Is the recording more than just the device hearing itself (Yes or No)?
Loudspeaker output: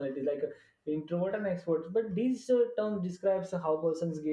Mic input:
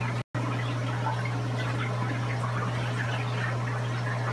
No